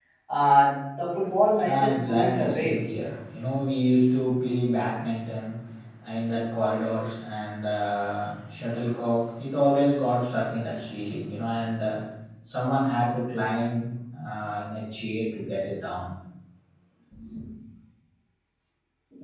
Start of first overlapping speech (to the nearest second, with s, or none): 2 s